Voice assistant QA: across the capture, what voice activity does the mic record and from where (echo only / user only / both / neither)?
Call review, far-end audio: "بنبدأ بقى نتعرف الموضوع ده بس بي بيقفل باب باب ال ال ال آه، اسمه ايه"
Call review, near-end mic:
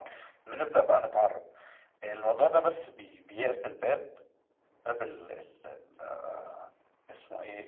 echo only